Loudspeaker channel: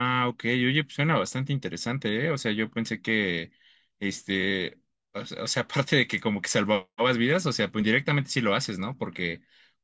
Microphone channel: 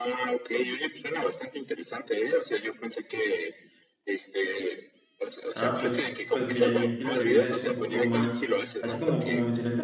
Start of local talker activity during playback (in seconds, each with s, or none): 5.6 s